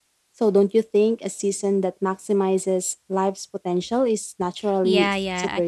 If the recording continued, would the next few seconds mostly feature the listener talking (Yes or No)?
Yes